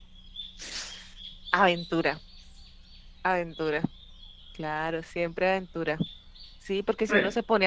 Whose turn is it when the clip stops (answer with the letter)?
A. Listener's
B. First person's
B